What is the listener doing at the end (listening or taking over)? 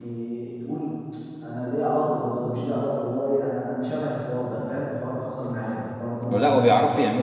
taking over